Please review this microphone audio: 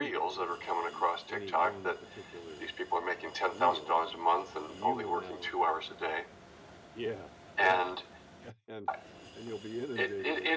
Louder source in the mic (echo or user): echo